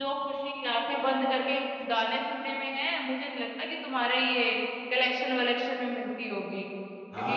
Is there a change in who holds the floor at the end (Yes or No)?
Yes